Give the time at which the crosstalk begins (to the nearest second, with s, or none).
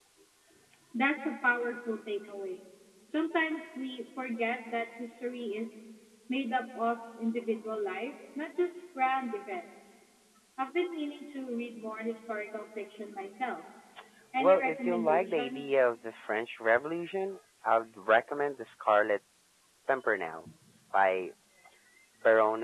14 s